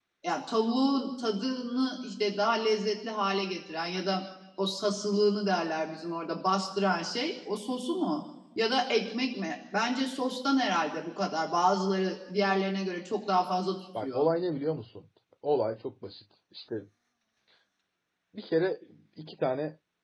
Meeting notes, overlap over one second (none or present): none